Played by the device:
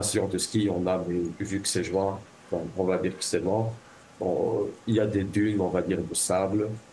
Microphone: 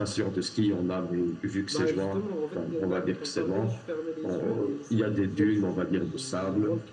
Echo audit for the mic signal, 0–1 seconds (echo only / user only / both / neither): echo only